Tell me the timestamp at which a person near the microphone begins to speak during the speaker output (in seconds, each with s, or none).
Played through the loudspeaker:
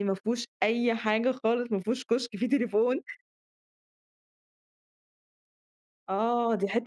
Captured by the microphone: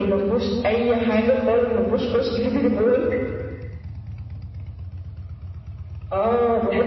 none